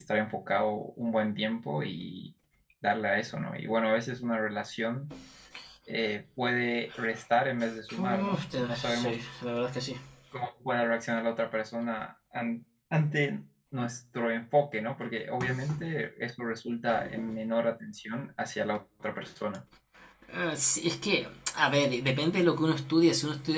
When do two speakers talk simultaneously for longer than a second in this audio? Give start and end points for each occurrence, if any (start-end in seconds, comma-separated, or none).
8.0-9.2